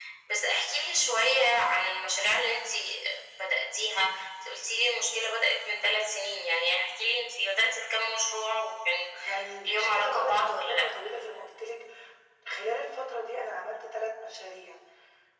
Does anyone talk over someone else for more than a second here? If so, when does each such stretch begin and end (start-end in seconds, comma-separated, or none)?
9.7-10.9